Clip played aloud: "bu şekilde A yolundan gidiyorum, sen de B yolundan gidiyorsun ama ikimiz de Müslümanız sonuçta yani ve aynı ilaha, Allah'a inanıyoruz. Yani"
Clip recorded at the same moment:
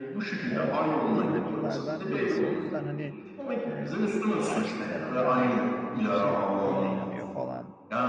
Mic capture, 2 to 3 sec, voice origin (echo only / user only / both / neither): both